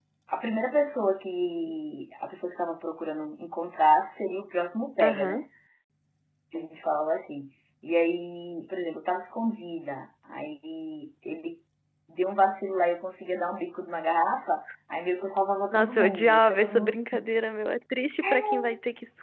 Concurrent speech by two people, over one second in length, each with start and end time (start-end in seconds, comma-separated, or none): 15.7-17.0